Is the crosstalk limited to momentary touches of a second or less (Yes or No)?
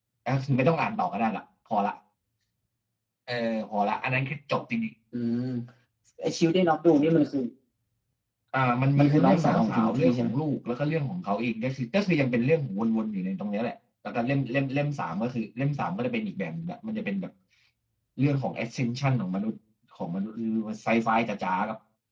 No